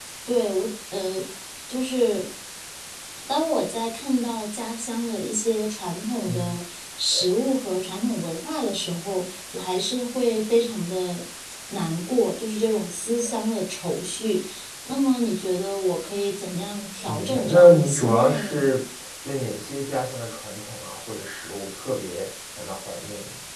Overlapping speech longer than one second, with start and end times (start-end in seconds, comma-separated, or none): 17.1-18.6